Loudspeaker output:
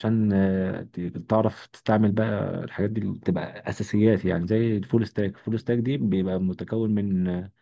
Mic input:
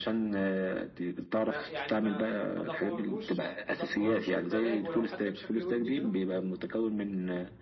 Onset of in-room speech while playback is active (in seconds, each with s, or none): 1.4 s